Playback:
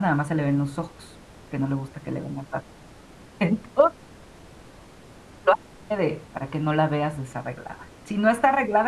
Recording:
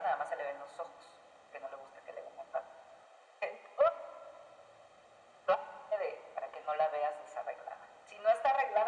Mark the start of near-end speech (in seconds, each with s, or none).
none